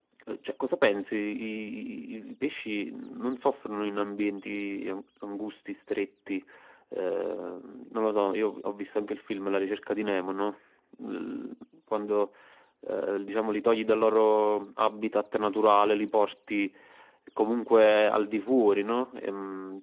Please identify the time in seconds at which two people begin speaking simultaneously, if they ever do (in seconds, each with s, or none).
none